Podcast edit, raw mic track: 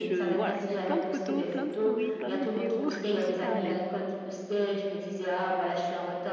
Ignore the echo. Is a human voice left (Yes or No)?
Yes